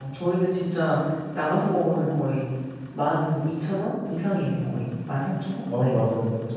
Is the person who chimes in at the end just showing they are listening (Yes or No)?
No